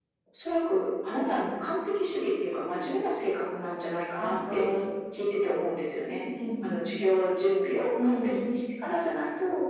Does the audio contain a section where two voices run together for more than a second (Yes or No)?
No